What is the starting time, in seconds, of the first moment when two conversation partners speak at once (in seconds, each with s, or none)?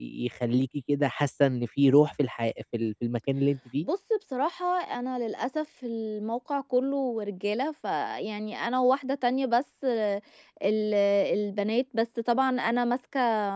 none